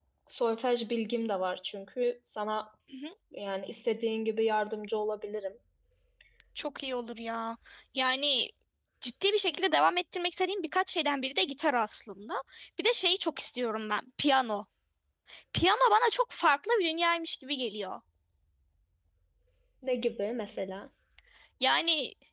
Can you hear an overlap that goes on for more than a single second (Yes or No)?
No